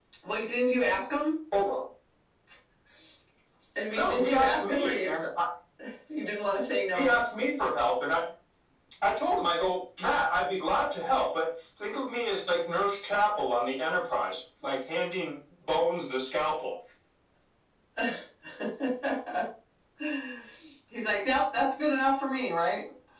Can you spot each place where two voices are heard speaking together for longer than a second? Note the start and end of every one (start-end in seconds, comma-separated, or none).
3.9-5.1